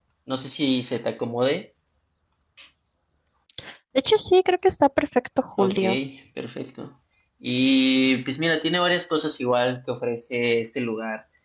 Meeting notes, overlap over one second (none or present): none